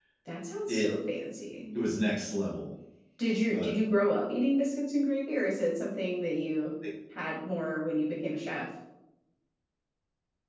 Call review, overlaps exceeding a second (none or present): none